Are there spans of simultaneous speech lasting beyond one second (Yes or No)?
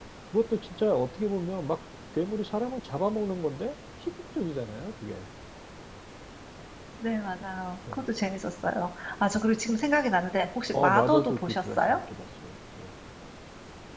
Yes